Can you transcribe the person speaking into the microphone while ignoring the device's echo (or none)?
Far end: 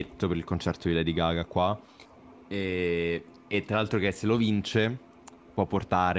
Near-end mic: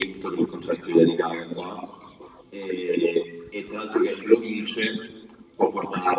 none